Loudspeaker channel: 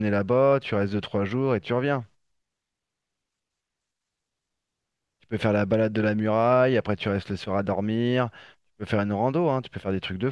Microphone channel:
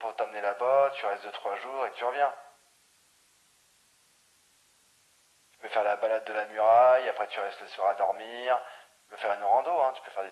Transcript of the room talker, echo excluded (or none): none